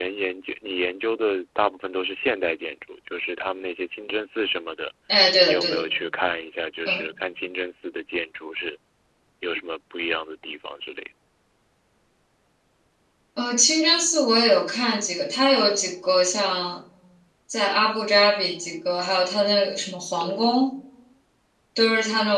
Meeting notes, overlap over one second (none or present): none